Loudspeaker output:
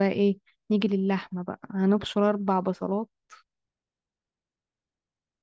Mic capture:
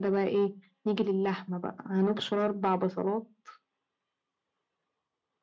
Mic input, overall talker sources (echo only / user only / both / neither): echo only